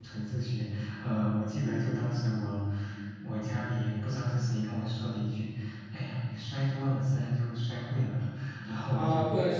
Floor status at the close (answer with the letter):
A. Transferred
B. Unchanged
A